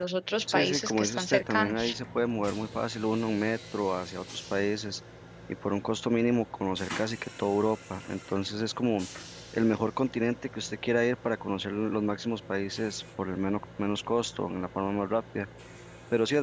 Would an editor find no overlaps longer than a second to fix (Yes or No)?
No